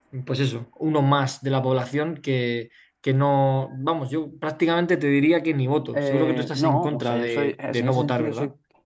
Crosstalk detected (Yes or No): Yes